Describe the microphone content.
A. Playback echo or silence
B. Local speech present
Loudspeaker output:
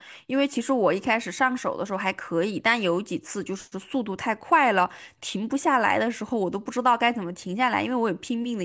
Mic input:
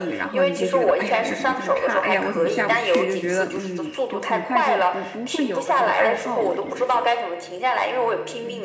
B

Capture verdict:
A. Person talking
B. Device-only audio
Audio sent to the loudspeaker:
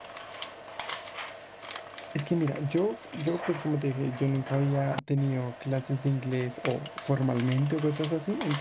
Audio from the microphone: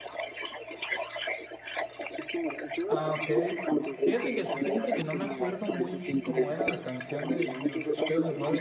A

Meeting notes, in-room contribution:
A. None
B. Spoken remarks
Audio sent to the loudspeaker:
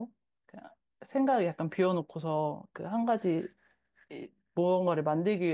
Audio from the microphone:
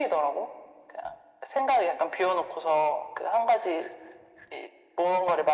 A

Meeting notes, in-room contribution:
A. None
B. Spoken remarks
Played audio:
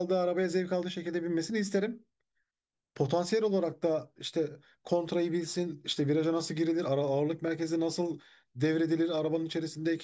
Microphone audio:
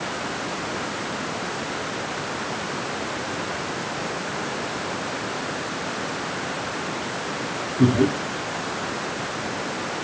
B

